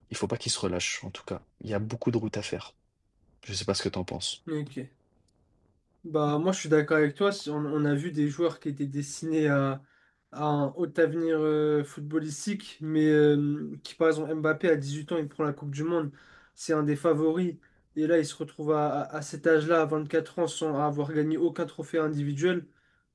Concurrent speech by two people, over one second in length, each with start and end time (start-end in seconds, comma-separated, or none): none